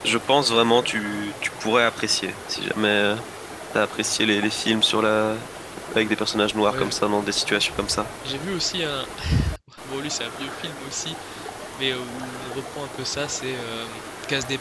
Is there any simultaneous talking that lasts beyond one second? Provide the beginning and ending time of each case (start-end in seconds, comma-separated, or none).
none